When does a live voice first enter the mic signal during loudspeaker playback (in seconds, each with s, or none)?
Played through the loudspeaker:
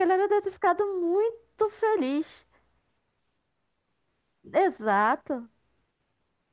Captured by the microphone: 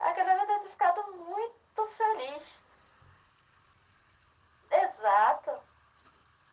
none